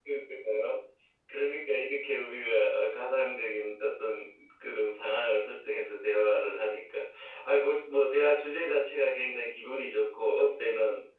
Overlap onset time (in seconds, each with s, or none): none